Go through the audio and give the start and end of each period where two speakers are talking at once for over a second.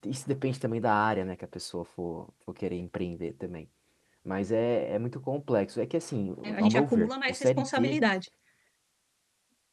6.4-8.0

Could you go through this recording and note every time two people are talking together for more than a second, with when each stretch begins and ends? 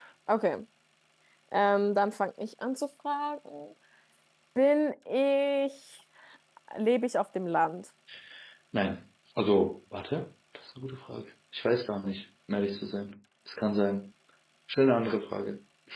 none

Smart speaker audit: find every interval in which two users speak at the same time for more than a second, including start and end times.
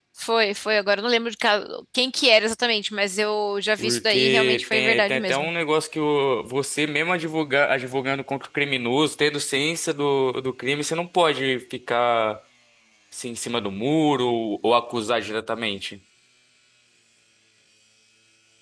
3.8-5.5

